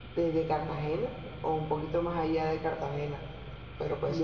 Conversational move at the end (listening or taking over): taking over